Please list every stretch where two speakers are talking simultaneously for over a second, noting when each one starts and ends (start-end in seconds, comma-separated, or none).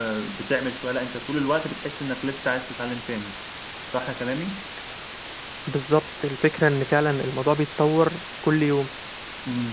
none